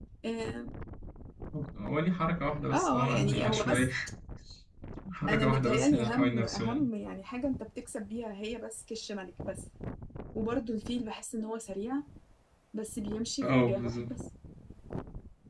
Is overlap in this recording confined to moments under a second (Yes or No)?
No